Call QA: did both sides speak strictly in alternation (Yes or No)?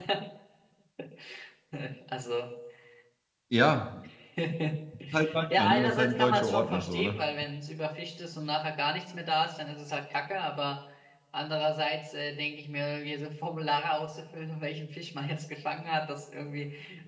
No